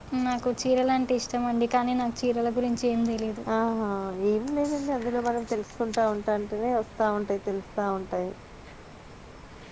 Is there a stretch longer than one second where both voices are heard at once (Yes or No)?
No